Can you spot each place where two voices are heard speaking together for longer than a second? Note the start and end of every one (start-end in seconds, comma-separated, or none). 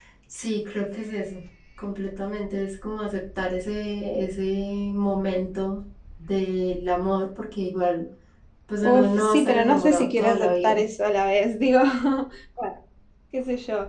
8.8-10.8